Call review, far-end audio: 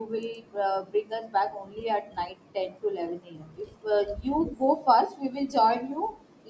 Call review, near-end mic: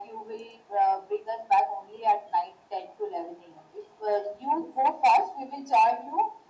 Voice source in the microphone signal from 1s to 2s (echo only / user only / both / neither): echo only